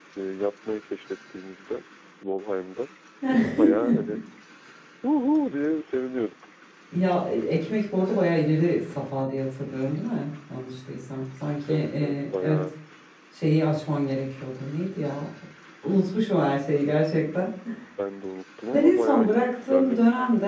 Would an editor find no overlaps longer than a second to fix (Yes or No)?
No